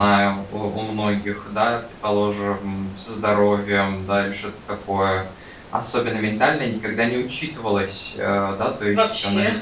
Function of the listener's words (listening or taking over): listening